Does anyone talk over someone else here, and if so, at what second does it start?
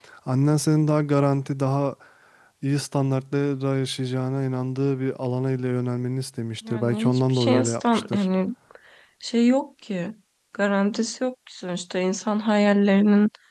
6.6 s

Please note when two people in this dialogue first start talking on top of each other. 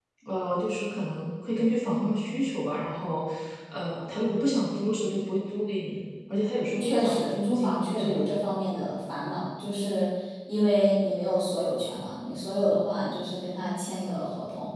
6.8 s

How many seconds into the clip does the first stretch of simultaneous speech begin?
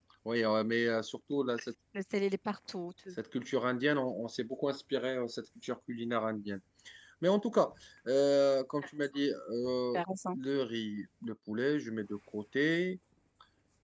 none

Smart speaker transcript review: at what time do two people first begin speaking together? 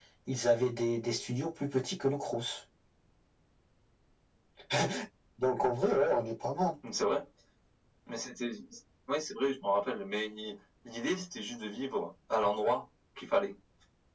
none

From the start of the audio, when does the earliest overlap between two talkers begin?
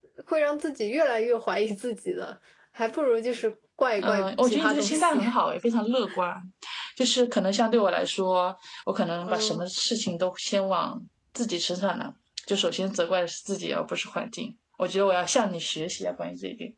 4.0 s

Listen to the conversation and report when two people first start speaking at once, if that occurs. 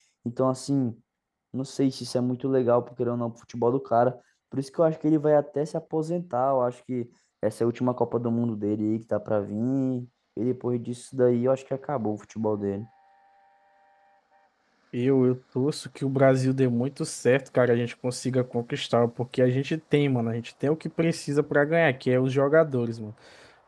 none

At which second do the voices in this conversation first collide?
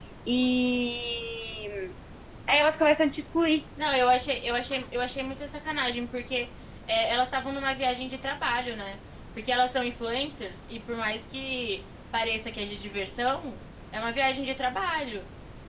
none

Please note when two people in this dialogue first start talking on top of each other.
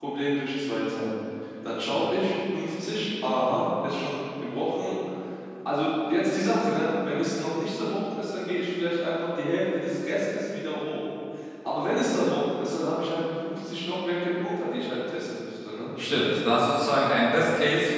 none

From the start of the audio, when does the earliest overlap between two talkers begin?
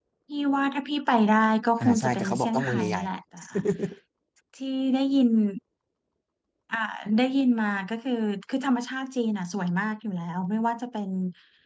1.8 s

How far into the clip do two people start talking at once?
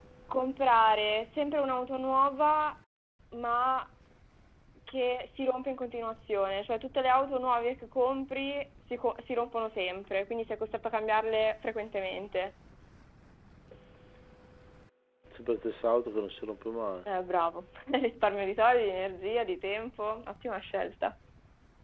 none

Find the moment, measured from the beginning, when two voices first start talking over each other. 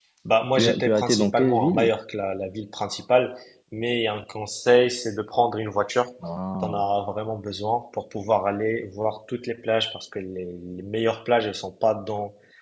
0.6 s

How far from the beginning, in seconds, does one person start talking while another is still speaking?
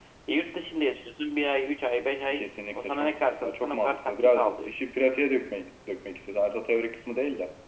2.3 s

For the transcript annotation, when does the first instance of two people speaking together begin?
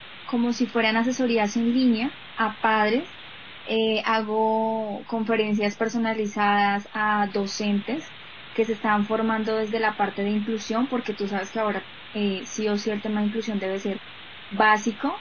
none

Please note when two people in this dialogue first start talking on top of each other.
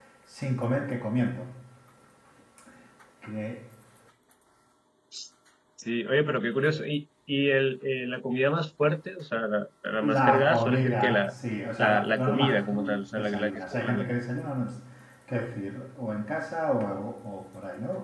10.0 s

